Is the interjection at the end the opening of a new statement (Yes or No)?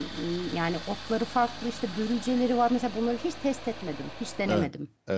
Yes